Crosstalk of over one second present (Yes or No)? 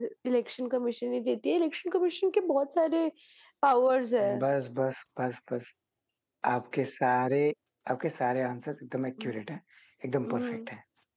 No